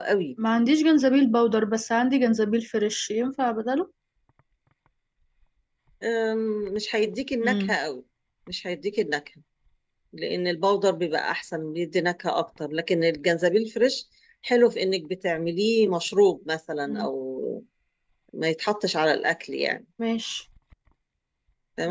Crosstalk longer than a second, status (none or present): none